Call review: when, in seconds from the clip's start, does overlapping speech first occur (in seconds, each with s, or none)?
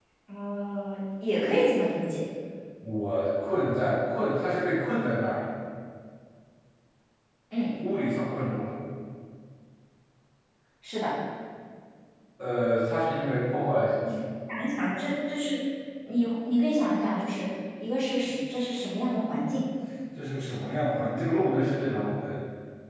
none